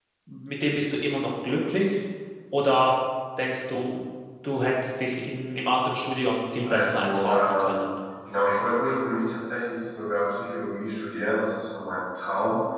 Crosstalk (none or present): present